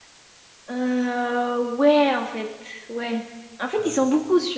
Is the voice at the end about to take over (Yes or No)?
No